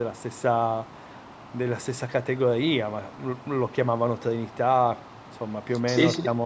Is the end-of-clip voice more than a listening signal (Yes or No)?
Yes